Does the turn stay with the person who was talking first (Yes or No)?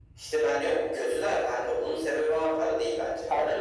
No